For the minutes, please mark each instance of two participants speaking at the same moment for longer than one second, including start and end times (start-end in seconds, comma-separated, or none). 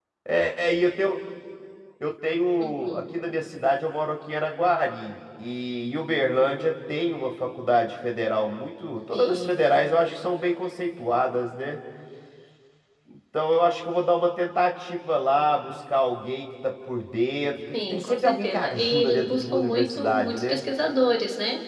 17.9-20.6